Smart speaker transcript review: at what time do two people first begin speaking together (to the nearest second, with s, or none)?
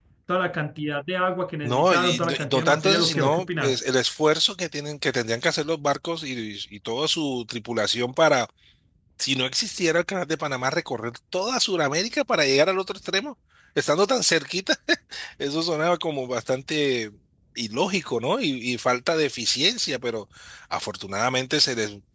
2 s